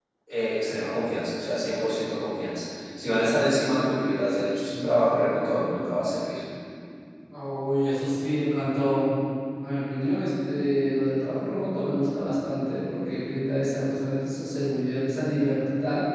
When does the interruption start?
none

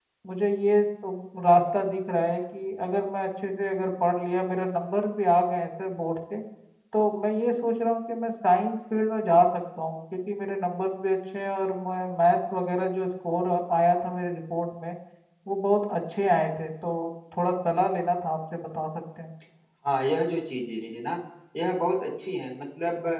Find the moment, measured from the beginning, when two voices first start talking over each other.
none

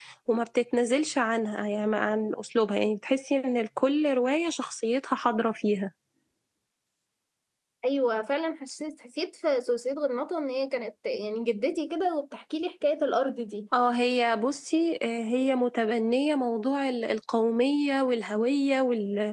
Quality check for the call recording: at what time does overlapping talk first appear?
none

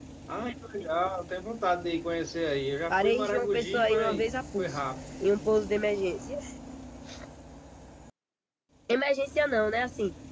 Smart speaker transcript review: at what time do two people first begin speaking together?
2.9 s

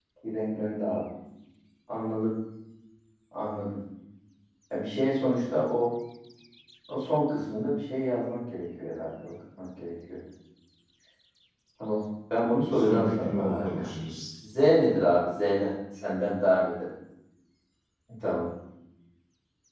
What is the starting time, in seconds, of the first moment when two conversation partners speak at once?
12.4 s

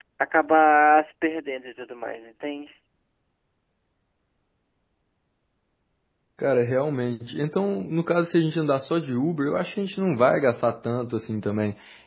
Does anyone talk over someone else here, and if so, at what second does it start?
none

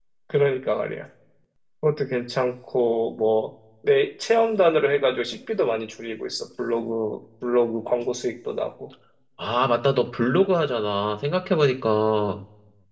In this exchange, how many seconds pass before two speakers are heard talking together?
none

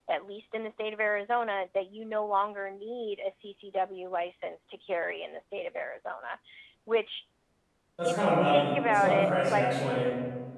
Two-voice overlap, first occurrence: 8.0 s

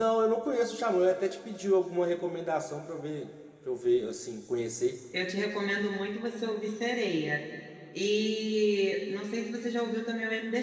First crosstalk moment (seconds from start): none

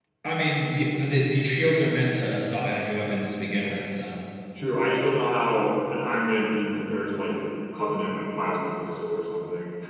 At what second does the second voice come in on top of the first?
none

